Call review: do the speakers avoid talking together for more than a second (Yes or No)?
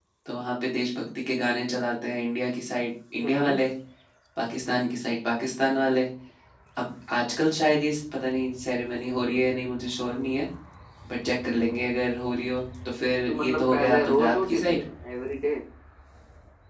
No